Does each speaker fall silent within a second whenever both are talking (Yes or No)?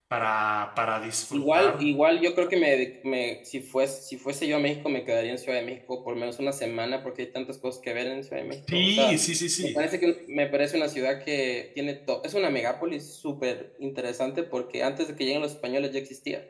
Yes